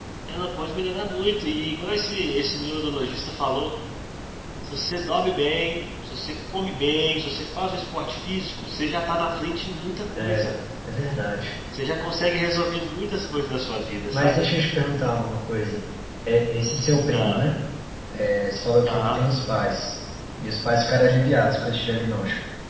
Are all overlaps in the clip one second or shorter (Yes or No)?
Yes